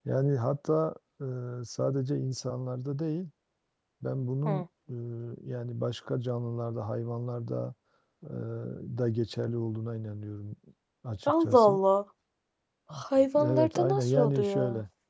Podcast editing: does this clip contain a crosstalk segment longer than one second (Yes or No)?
Yes